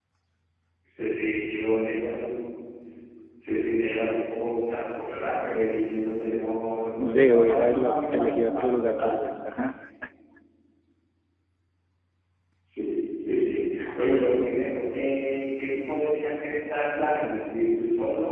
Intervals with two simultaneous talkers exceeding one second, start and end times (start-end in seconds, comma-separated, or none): 7.1-9.3